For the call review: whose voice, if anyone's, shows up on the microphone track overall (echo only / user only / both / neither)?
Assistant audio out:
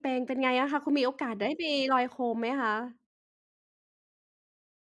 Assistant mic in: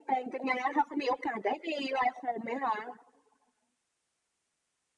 echo only